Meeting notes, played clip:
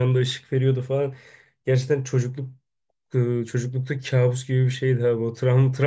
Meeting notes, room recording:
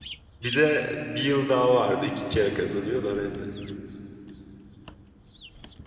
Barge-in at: 0 s

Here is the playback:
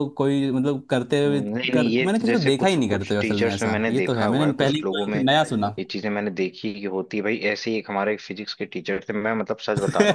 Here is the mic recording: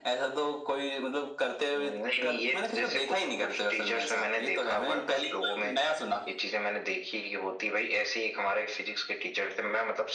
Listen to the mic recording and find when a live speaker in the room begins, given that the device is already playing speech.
none

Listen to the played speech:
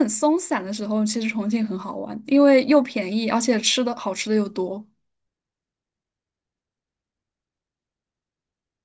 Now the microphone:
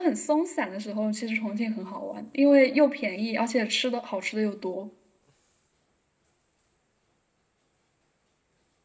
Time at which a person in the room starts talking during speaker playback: none

